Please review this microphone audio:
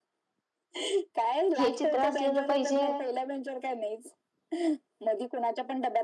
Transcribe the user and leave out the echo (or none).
हे चित्र असलेलं पाहिजे